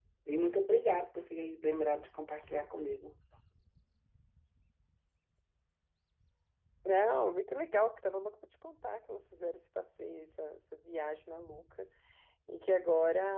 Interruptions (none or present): none